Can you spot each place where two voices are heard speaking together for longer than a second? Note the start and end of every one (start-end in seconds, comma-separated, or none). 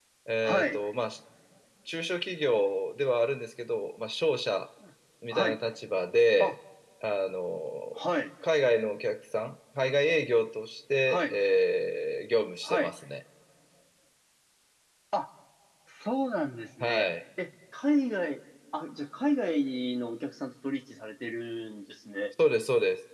none